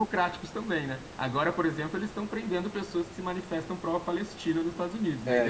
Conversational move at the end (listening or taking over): taking over